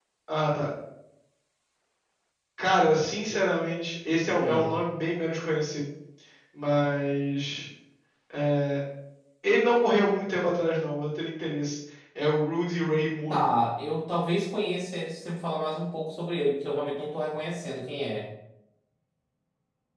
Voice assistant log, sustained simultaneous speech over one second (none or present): none